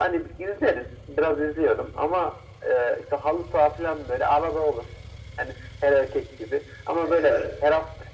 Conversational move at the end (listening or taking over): listening